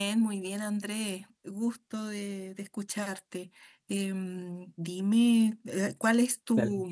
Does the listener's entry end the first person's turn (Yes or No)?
Yes